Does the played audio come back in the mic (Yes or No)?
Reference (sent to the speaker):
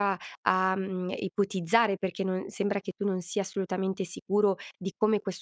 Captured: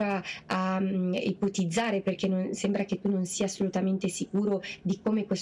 Yes